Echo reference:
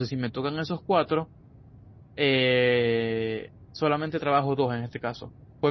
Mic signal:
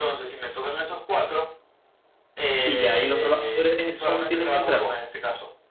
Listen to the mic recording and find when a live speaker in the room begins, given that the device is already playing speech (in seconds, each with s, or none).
2.6 s